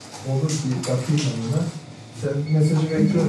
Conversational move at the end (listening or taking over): listening